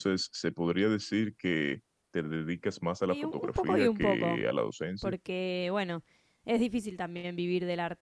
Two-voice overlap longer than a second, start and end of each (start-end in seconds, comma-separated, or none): 3.1-4.4